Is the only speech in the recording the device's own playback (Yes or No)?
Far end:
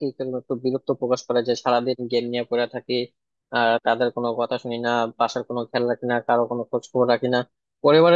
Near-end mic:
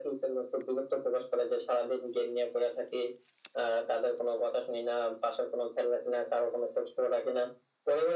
Yes